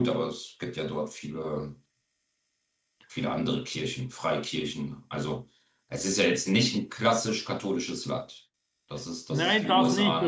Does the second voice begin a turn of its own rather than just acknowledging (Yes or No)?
Yes